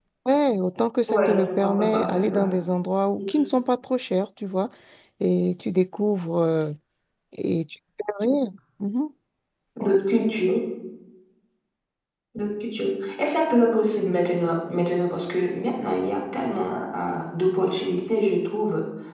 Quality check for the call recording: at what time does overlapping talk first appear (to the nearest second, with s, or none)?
1 s